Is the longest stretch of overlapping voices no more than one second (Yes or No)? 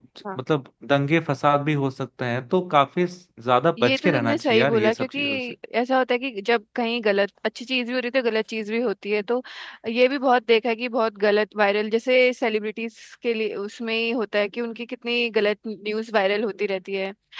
No